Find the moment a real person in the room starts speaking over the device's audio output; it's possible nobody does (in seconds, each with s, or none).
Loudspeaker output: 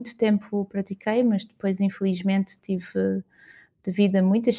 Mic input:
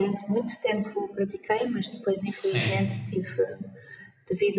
2.2 s